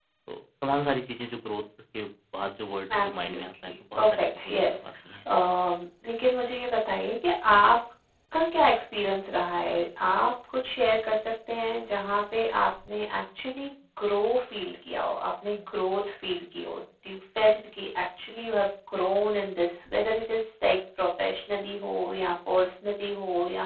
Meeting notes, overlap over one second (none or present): present